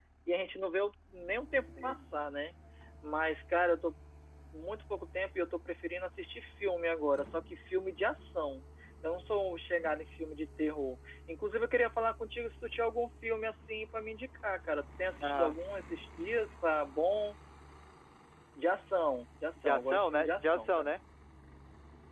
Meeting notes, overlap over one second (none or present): present